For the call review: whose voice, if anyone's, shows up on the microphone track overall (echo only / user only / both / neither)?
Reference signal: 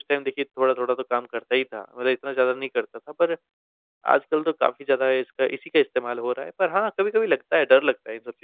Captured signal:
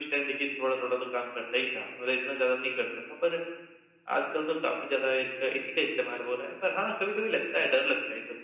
echo only